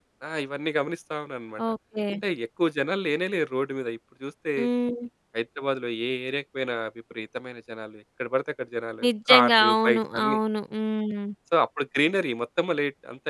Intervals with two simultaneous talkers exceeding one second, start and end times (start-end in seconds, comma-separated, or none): 9.0-10.4